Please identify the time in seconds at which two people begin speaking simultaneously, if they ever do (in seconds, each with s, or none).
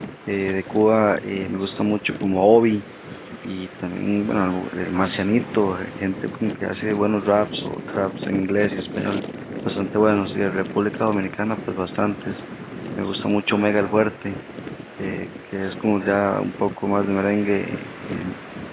none